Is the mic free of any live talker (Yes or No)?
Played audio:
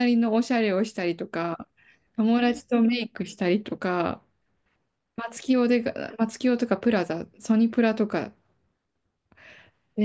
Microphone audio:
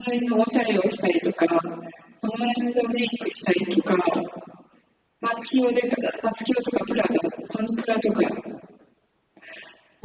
Yes